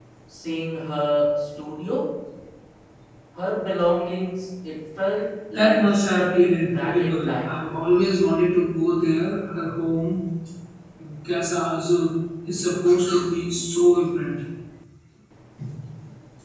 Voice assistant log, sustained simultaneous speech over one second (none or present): present